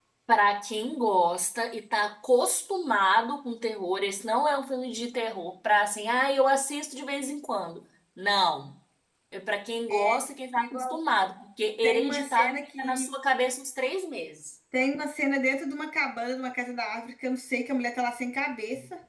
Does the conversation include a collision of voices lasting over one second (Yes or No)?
Yes